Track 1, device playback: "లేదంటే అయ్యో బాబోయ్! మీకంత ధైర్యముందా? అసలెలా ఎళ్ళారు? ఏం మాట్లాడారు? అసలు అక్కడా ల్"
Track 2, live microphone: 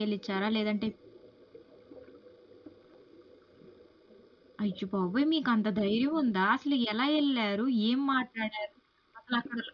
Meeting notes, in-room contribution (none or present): none